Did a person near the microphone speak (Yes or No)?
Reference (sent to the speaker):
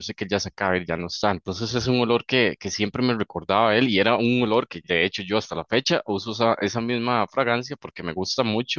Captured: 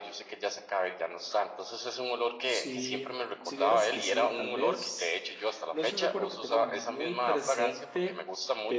Yes